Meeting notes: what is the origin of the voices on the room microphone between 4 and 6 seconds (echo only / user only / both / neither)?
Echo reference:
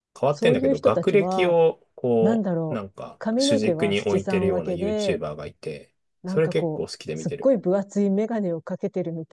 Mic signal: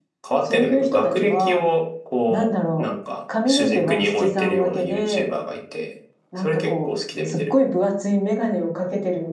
echo only